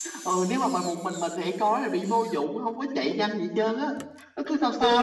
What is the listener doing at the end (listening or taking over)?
taking over